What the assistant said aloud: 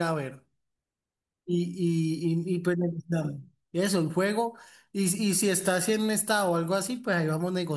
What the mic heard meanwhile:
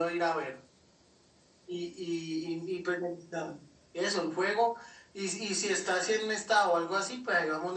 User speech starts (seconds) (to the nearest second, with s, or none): none